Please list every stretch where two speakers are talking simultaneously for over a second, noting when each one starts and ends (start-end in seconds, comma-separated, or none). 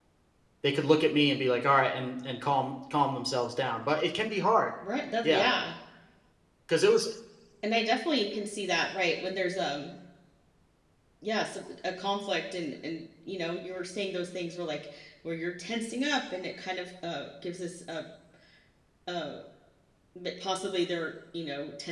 none